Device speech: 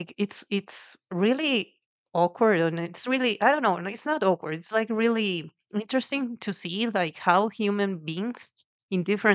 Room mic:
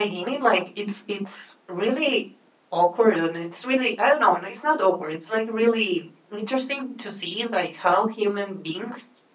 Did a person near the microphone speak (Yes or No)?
No